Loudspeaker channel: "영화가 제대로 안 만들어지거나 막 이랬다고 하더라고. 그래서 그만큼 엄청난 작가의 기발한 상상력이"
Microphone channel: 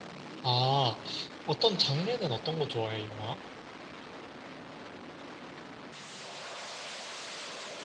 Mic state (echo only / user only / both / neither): user only